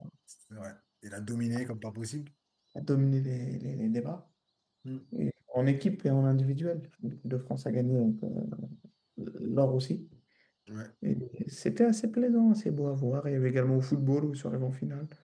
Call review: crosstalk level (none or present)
none